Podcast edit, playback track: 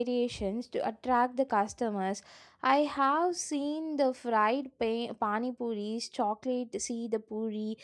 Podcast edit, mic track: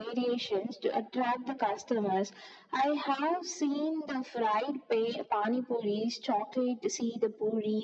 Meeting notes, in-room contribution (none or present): none